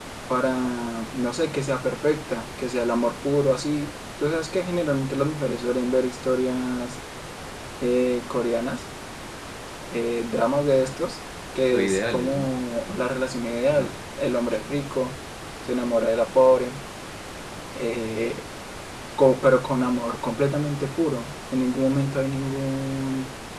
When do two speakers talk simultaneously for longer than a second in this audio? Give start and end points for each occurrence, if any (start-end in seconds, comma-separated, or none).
11.6-13.0